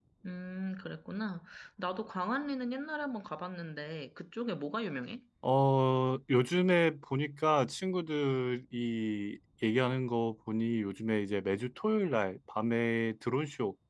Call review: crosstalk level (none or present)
none